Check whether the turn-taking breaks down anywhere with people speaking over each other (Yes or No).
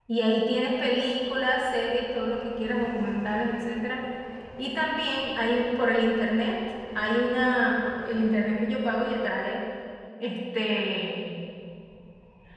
No